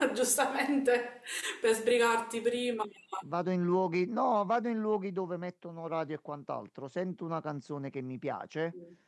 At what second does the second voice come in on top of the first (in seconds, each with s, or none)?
none